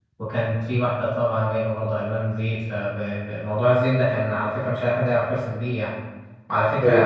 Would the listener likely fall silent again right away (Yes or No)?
Yes